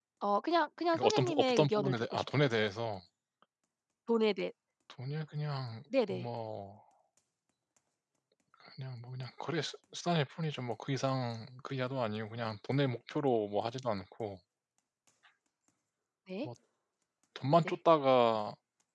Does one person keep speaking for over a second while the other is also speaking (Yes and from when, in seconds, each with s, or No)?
Yes, from 0.9 s